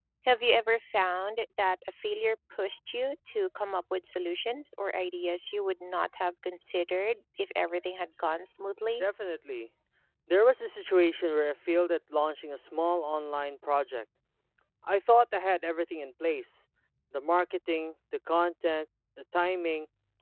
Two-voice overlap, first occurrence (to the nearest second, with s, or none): none